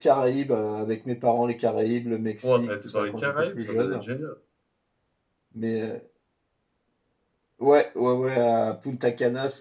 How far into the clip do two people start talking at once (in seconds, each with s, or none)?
2.4 s